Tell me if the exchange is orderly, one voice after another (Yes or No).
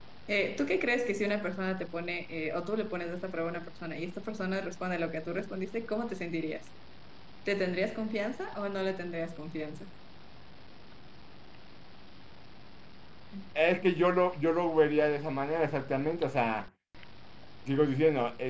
Yes